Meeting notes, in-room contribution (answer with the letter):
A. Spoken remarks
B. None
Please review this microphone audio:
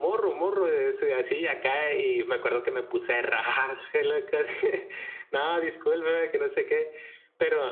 B